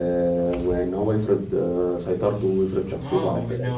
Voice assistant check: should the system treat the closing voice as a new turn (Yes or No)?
Yes